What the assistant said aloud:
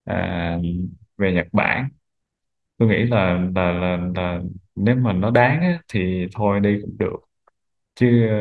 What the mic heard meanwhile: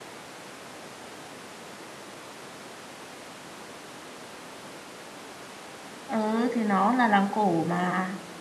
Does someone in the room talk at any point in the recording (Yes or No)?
Yes